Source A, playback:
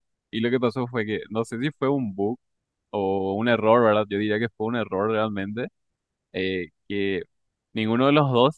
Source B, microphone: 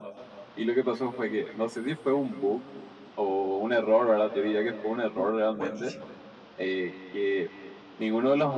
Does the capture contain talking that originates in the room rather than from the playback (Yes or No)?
Yes